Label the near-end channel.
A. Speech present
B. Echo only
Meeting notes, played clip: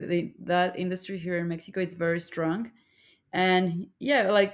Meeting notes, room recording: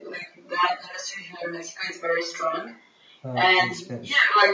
A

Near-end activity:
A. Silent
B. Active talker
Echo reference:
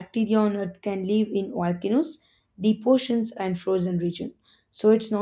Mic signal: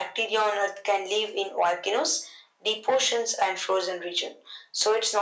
A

